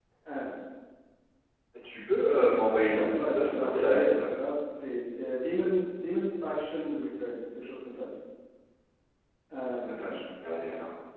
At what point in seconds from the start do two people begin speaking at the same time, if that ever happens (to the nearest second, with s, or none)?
3 s